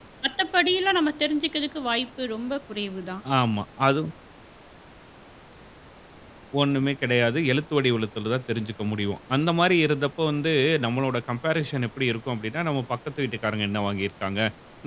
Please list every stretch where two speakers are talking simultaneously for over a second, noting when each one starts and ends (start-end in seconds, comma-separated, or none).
none